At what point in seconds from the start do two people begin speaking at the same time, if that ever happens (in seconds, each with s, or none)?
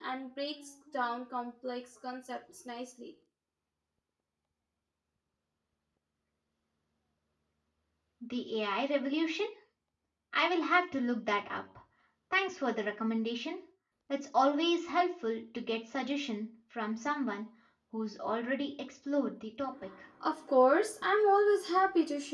none